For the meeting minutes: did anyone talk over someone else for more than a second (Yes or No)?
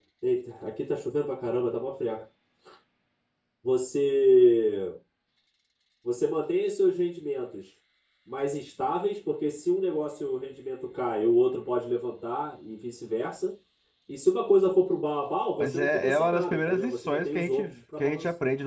Yes